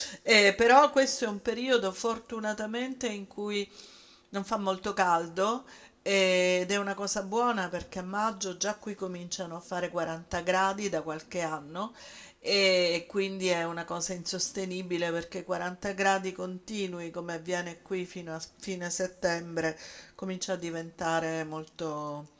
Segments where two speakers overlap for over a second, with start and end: none

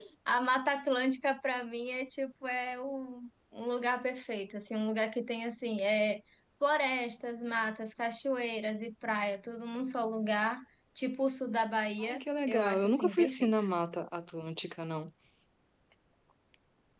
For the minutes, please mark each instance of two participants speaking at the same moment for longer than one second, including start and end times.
12.0-13.6

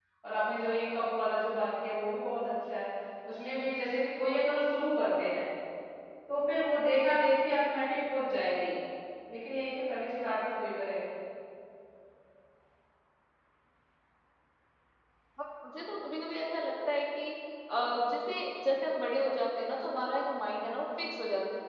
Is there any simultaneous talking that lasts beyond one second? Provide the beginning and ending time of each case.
none

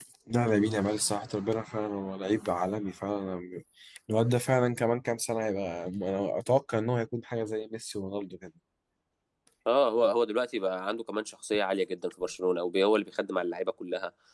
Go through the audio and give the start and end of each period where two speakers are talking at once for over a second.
none

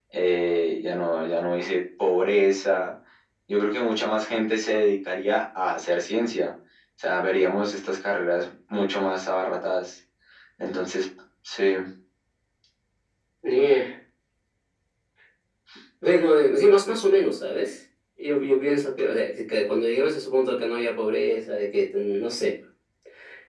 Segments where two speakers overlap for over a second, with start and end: none

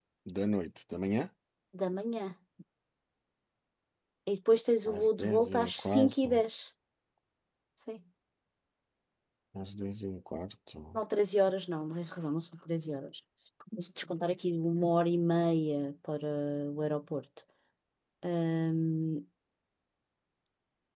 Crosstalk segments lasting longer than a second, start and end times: 4.9-6.4

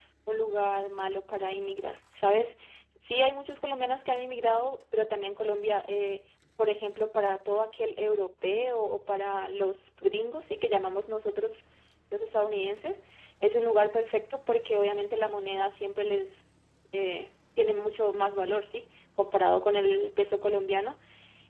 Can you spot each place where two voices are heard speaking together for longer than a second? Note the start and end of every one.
none

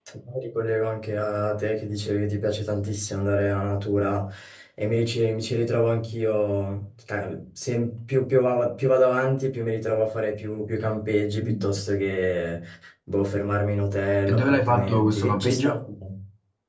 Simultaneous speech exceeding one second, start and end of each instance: 14.3-15.7

